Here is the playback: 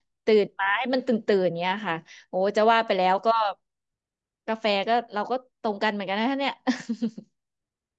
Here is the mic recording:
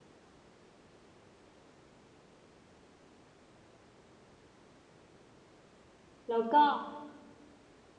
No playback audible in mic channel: Yes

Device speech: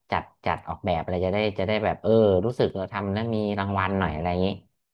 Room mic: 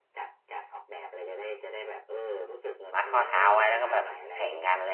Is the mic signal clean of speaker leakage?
No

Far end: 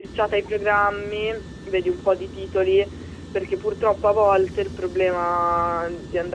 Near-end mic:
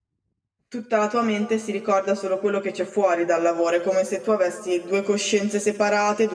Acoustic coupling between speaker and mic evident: No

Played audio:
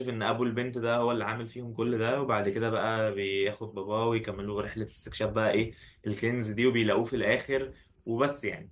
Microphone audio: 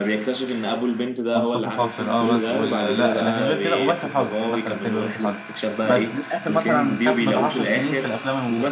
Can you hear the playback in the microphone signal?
Yes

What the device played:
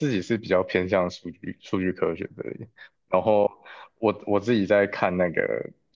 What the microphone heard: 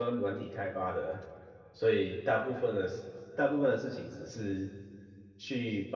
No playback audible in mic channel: Yes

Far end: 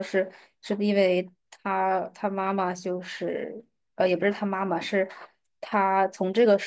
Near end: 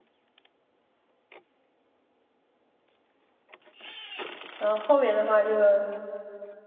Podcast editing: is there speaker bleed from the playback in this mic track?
No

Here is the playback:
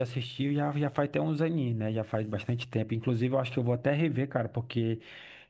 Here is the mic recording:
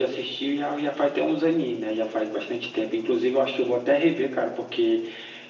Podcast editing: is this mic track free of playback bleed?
No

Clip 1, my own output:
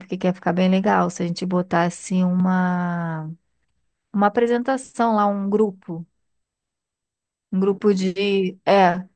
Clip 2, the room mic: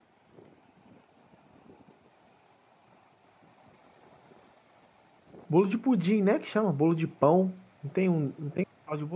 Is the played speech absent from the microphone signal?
Yes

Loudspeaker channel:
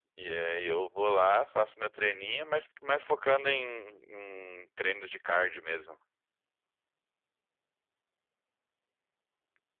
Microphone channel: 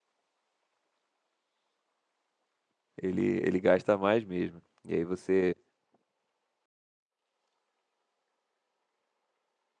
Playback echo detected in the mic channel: No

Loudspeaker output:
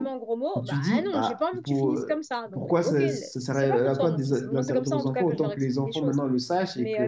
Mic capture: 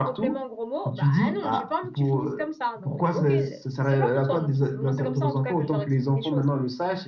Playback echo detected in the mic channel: Yes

